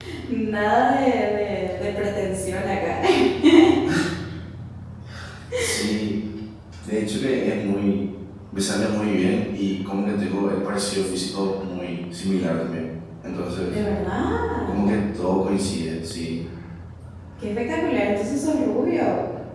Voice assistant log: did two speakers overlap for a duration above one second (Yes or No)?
No